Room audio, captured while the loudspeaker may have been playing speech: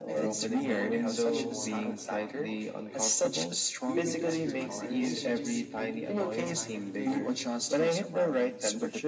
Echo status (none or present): present